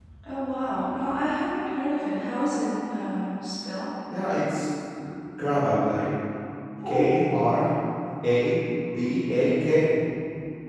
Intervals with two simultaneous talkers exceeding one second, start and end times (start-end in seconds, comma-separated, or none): none